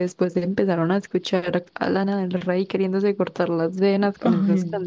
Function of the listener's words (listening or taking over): taking over